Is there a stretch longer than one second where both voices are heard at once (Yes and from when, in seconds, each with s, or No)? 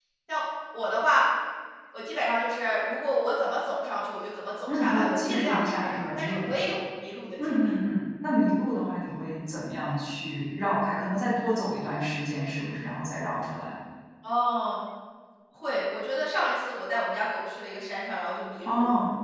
Yes, from 4.7 s